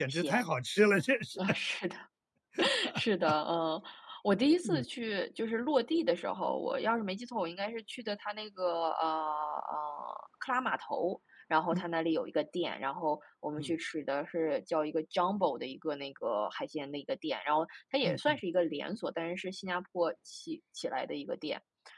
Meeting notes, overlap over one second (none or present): none